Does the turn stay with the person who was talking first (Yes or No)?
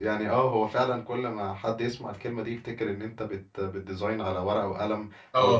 No